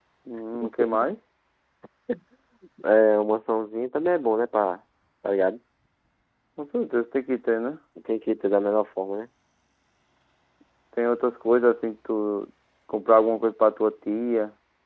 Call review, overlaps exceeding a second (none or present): none